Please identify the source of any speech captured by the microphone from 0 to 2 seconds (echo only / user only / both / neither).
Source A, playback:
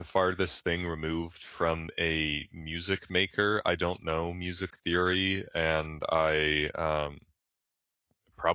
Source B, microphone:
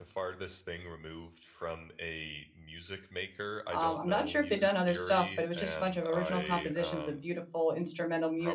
echo only